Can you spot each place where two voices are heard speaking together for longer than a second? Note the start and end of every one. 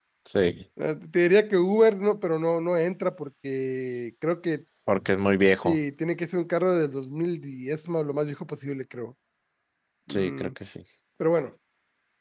none

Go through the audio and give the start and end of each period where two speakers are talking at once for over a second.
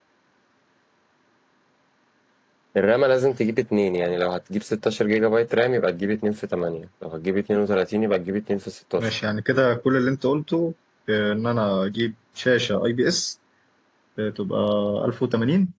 none

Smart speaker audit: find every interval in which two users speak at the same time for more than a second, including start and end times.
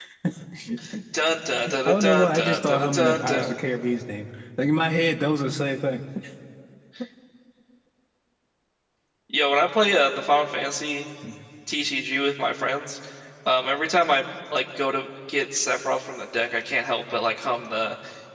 1.9-3.5

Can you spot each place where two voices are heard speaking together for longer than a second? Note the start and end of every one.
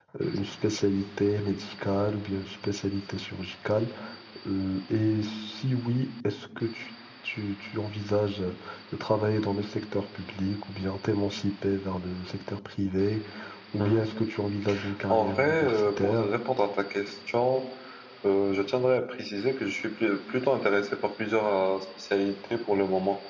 15.1-16.3

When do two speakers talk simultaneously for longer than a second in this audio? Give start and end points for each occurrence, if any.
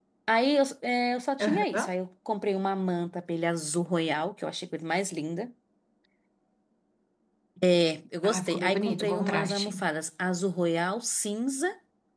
8.2-9.8

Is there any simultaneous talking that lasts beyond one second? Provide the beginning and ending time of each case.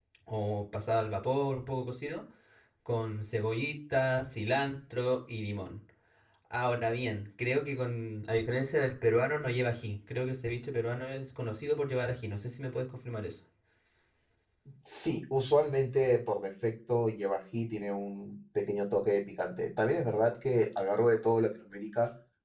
none

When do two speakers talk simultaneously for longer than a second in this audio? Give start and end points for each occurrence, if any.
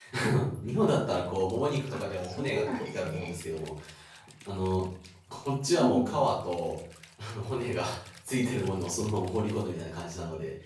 1.9-3.3

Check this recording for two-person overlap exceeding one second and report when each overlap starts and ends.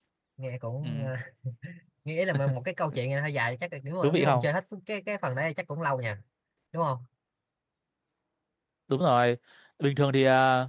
none

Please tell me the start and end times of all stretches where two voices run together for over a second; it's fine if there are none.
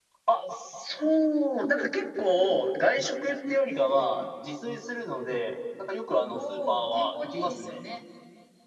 6.2-7.8

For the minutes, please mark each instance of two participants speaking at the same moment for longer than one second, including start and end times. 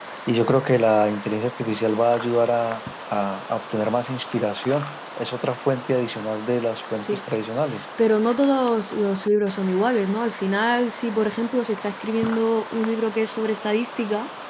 none

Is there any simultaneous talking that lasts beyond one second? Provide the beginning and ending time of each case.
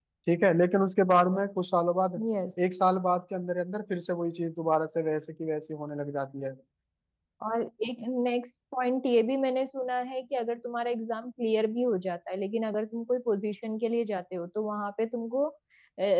none

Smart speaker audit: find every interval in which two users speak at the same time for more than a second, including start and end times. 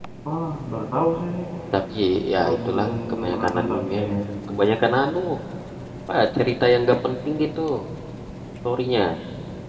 2.4-4.0

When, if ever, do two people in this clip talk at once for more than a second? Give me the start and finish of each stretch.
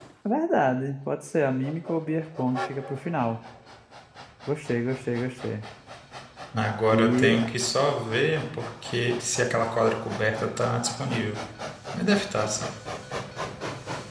none

